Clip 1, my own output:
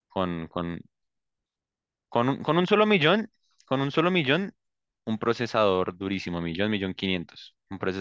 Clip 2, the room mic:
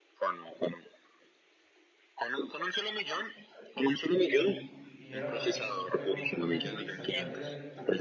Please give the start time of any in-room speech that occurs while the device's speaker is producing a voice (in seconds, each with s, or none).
3.8 s